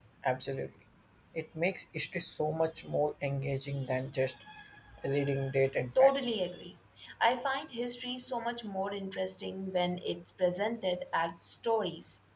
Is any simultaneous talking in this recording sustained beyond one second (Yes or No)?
No